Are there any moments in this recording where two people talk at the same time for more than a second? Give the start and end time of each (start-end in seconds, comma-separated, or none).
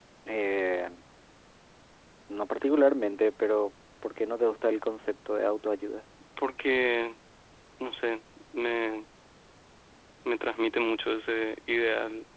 none